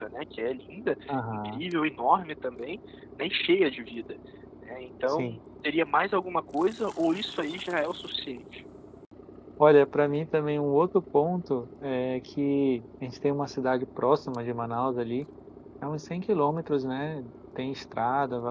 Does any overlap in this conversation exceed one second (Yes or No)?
No